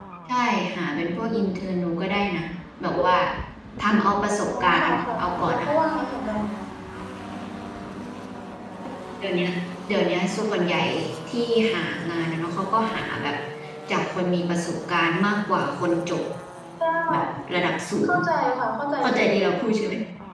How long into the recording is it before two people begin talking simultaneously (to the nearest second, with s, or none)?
4 s